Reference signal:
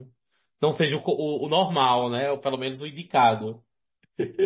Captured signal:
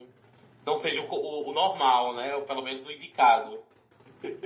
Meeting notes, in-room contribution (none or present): none